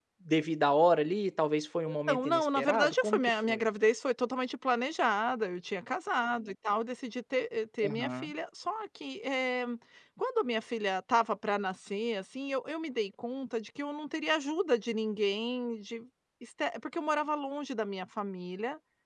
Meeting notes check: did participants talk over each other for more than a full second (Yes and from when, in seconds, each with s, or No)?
Yes, from 1.9 s